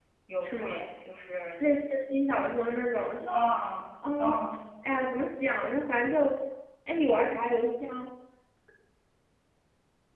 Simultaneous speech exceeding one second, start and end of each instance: none

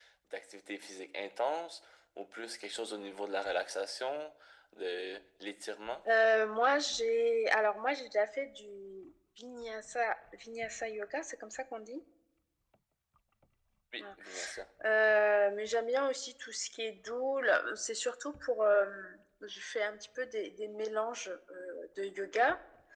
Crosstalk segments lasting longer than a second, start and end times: none

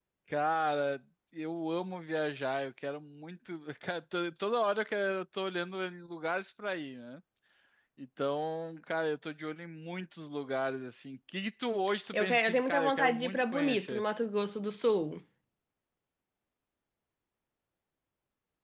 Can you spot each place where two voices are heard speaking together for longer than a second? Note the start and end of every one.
12.1-14.0

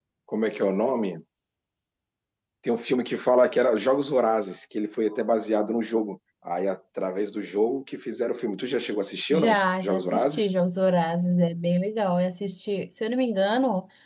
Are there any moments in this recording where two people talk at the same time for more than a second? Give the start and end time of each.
9.3-10.5

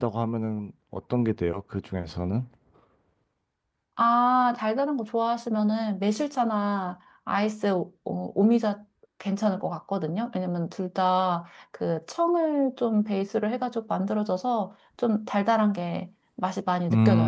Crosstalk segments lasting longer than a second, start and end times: none

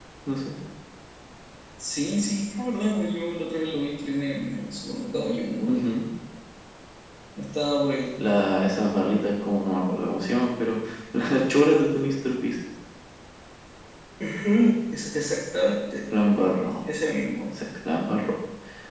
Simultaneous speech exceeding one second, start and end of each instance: none

